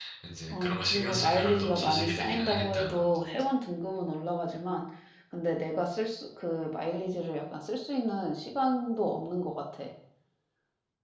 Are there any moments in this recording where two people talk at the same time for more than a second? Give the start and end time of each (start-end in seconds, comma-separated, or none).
0.5-3.0